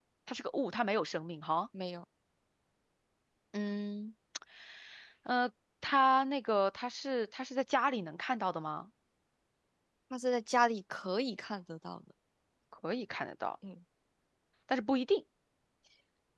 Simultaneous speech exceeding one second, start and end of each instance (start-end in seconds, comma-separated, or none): none